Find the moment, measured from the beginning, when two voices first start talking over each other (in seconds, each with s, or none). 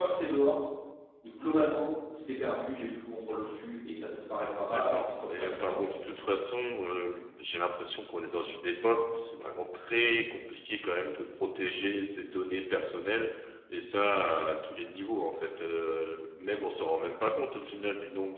4.7 s